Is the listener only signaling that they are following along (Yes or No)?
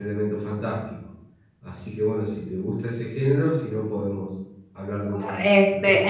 No